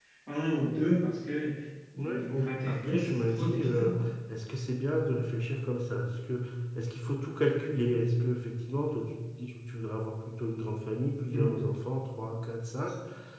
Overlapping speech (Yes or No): Yes